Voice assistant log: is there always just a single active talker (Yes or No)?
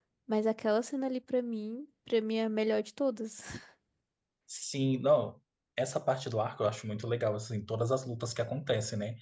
Yes